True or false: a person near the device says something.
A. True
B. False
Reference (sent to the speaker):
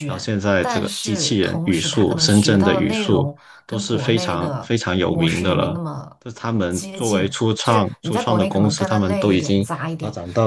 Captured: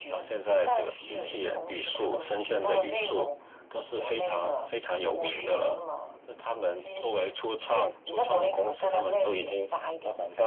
B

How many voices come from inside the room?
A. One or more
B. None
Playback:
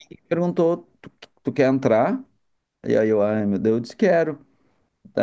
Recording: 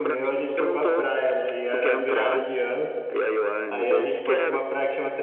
A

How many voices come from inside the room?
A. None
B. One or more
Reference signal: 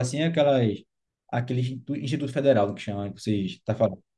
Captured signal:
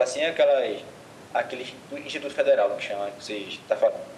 A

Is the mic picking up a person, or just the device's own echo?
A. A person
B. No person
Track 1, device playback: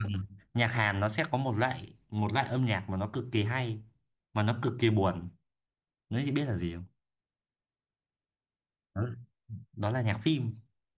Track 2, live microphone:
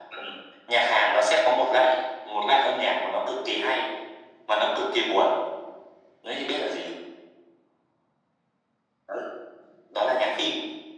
B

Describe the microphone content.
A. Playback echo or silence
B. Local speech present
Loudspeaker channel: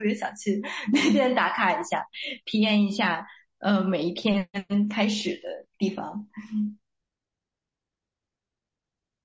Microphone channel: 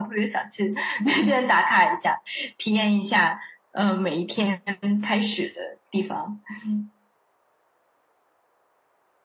A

